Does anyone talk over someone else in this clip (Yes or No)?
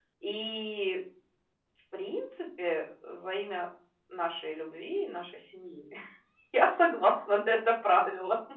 No